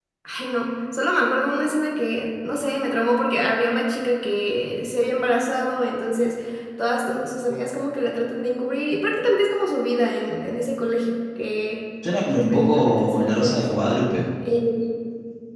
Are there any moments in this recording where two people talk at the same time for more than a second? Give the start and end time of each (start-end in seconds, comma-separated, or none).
12.3-13.6